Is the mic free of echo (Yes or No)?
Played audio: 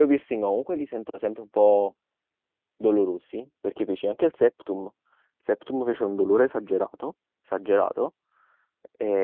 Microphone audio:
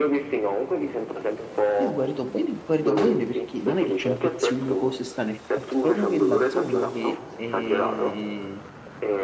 No